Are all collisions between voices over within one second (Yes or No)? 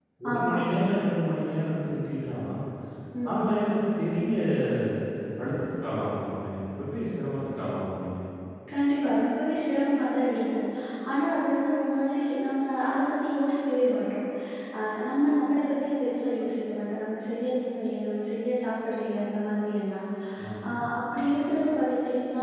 Yes